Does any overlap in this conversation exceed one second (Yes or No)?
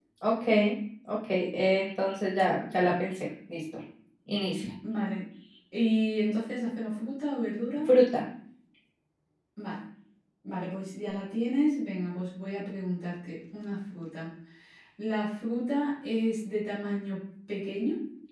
No